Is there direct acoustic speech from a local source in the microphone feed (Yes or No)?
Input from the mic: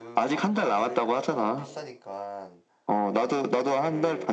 Yes